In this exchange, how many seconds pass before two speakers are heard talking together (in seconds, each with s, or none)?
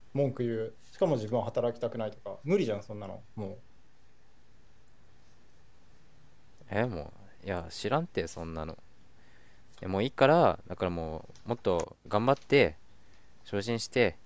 none